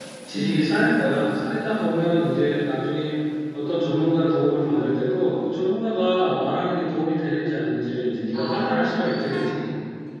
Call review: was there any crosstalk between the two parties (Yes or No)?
Yes